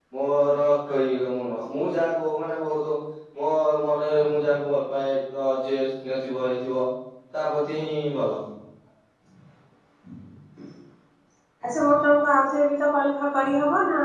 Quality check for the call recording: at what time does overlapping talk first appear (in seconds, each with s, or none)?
none